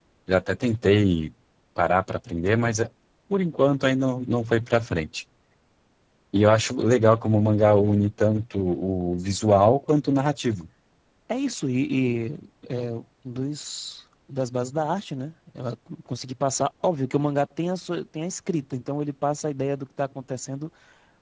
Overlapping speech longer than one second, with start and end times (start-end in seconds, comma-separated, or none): none